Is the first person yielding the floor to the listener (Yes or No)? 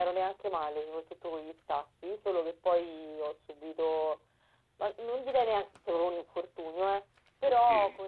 No